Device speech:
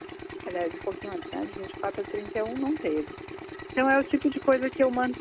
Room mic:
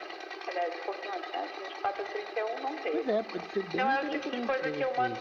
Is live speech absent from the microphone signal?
No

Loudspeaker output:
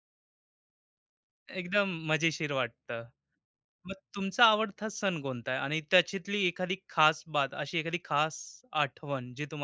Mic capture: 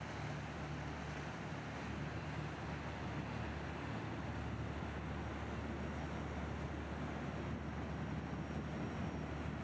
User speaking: No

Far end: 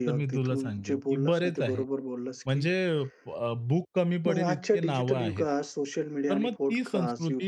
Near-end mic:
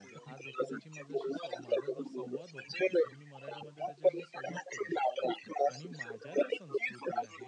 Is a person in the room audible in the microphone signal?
Yes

